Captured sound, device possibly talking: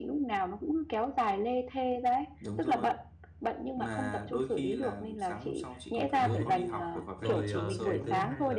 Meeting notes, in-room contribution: present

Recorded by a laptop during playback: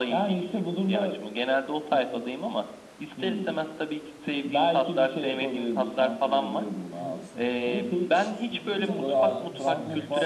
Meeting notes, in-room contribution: present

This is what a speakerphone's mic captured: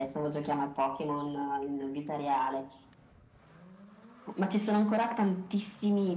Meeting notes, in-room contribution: none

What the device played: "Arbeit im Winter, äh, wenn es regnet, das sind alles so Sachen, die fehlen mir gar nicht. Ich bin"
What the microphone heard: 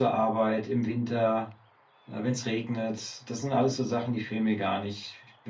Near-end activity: none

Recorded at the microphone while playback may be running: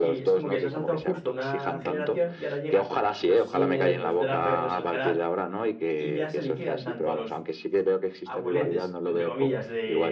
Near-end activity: present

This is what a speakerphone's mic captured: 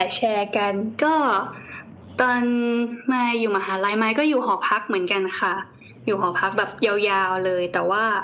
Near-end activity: none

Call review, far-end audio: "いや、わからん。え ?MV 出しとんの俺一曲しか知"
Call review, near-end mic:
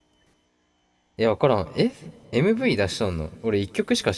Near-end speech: none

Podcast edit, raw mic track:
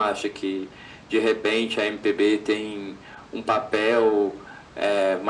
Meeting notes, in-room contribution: none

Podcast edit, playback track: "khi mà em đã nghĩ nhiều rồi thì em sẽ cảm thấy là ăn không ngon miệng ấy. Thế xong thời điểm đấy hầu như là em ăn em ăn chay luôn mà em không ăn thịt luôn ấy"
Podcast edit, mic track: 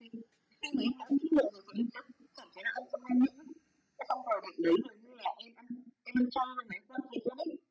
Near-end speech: none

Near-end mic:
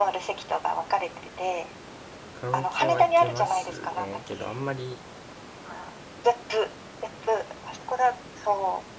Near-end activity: present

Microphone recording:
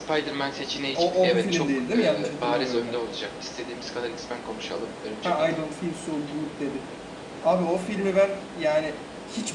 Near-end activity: present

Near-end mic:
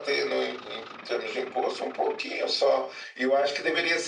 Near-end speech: none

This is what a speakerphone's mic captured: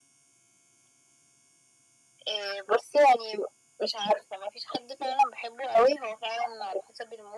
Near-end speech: none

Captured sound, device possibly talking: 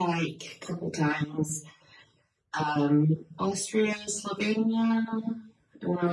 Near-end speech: none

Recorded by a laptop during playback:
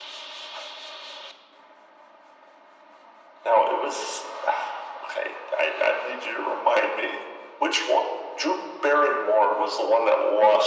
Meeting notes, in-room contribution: none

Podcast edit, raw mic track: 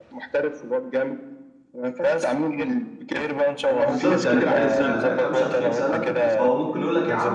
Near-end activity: present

